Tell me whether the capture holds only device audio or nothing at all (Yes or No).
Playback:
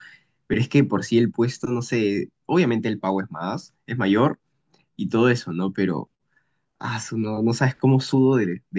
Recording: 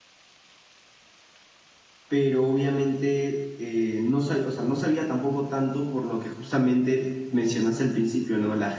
No